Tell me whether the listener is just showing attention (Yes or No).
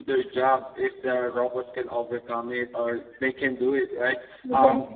Yes